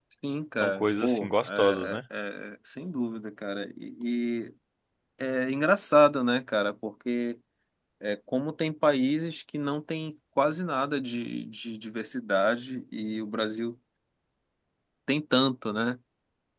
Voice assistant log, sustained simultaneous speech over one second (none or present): present